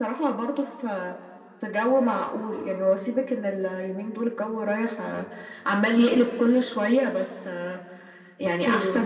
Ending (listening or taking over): listening